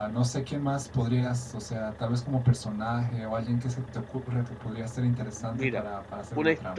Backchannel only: No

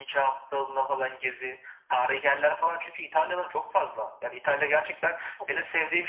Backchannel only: Yes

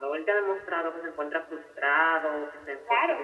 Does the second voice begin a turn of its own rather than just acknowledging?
Yes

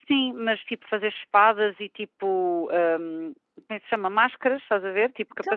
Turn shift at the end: Yes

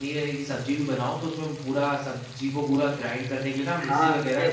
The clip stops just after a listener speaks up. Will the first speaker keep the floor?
No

